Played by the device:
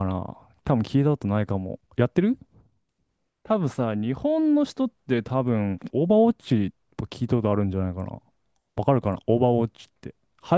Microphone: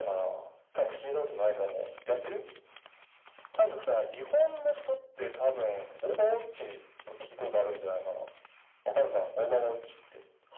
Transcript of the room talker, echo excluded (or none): none